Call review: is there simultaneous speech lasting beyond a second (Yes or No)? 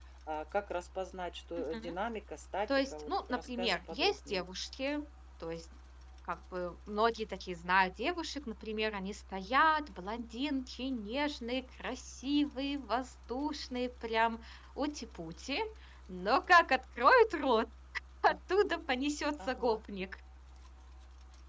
Yes